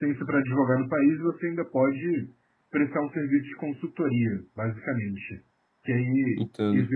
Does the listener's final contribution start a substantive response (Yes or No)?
No